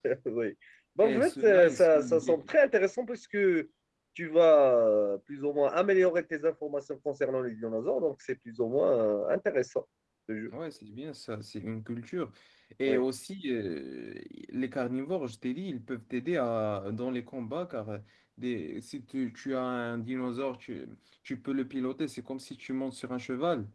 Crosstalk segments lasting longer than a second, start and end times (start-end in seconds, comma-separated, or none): 1.0-2.5